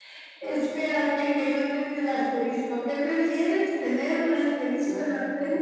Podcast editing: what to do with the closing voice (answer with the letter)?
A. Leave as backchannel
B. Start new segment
B